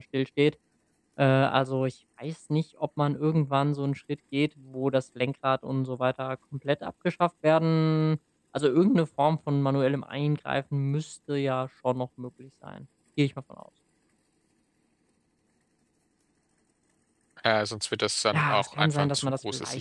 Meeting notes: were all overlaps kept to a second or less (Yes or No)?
No